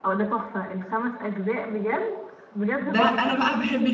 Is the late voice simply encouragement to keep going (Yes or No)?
No